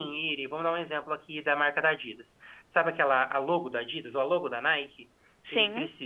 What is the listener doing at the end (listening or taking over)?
listening